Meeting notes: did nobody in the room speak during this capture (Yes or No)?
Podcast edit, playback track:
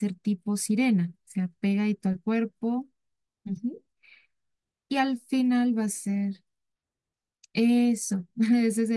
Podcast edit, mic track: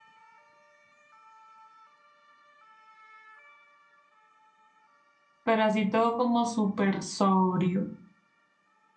No